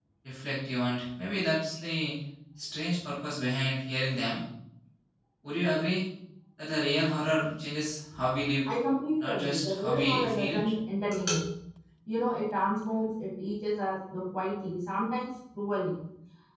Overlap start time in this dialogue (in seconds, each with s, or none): 9.2 s